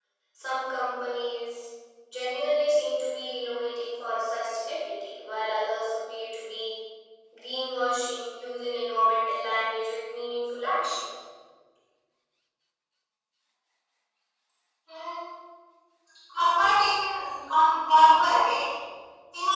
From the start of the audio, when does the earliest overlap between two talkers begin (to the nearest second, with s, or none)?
none